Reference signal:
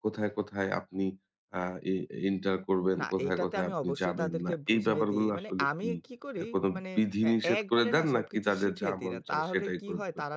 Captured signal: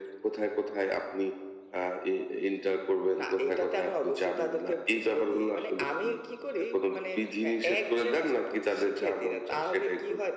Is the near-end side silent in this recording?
Yes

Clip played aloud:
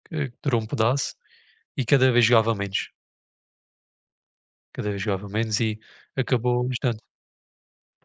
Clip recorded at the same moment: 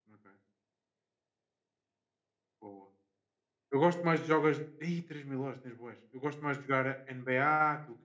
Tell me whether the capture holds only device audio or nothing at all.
No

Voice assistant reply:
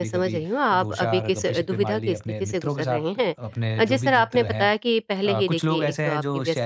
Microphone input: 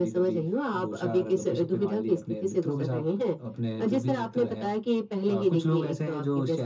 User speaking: No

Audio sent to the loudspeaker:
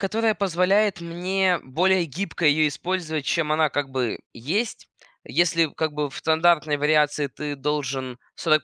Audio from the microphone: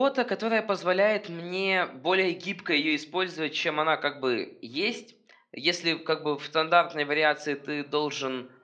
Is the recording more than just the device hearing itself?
No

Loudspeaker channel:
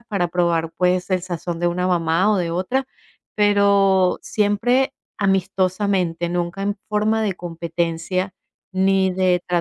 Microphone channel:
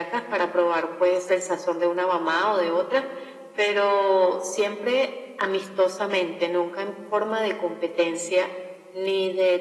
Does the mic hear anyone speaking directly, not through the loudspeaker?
No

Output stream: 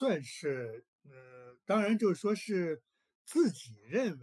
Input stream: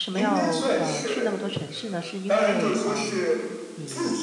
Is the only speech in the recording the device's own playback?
No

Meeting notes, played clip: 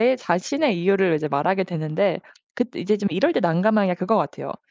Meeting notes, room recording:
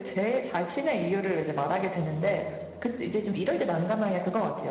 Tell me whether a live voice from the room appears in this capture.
No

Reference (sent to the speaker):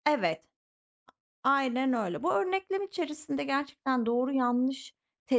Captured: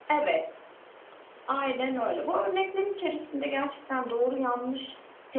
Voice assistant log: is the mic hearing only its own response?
Yes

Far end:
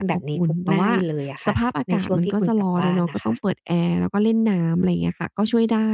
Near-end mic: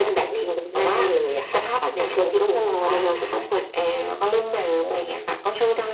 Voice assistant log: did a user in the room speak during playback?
No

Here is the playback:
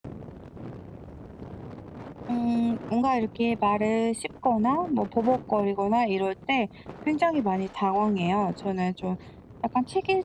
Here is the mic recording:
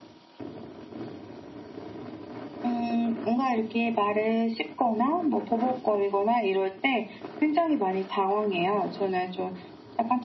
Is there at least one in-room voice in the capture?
No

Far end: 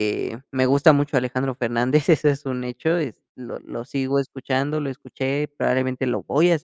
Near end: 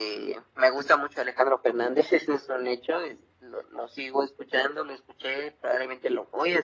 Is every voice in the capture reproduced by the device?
Yes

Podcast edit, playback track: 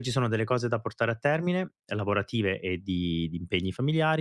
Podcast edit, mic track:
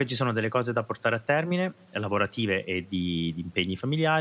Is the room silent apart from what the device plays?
Yes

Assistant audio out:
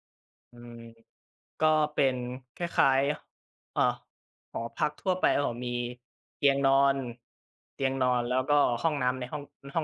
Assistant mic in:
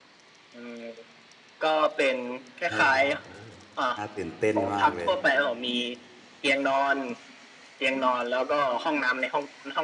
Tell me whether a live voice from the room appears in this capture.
Yes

